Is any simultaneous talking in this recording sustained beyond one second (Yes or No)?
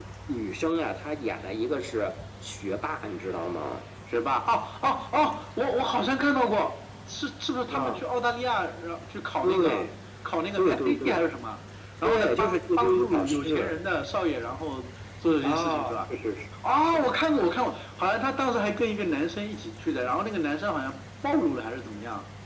Yes